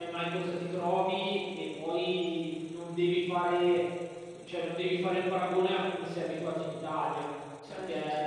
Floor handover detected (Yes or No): No